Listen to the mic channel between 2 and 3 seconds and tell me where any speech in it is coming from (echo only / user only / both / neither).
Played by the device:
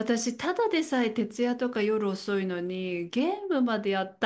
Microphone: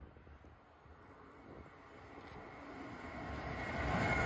neither